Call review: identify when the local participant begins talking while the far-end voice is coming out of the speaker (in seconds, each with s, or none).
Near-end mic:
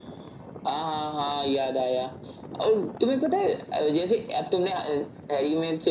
none